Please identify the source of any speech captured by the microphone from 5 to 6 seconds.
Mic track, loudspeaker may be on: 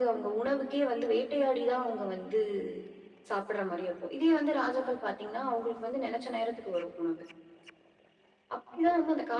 echo only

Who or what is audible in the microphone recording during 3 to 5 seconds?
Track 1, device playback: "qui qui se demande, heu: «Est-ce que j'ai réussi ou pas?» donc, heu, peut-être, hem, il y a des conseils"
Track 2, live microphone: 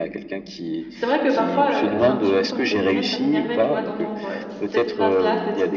both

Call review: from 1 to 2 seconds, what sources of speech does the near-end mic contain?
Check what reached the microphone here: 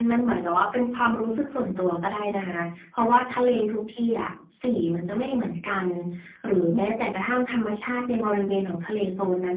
echo only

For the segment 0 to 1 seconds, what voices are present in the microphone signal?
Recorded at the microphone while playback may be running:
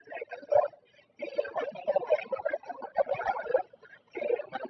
echo only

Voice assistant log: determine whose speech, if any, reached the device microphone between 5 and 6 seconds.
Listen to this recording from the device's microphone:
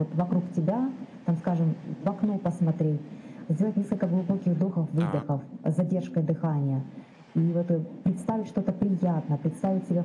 both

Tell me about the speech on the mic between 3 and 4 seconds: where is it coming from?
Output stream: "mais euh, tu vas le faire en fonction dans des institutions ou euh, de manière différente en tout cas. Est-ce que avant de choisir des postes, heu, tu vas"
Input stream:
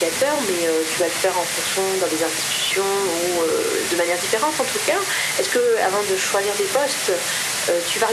echo only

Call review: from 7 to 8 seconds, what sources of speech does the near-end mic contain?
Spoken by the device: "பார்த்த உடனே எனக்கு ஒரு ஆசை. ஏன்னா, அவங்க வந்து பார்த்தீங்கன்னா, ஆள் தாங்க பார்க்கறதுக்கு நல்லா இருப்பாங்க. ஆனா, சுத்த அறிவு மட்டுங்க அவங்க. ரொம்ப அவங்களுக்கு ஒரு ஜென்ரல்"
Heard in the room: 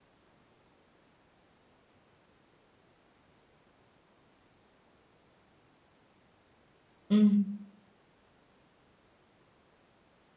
user only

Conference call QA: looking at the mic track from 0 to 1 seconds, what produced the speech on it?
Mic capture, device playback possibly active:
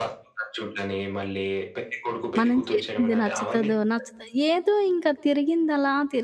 echo only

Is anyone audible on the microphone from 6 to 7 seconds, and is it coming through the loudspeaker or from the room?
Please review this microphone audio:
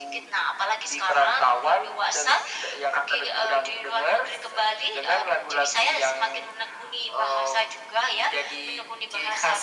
echo only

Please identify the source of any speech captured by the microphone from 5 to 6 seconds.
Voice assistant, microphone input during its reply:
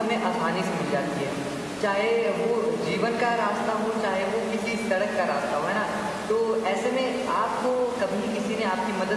echo only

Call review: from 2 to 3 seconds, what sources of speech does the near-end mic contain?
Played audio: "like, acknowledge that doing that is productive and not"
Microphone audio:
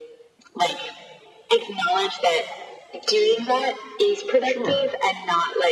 echo only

